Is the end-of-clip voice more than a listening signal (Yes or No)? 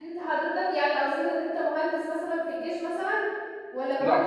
No